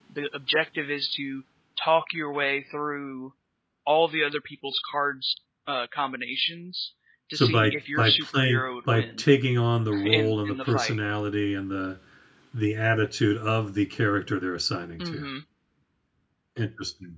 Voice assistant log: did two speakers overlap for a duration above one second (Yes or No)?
Yes